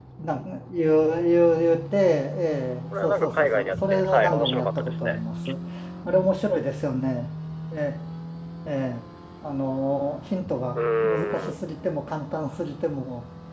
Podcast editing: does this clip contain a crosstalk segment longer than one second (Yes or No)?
Yes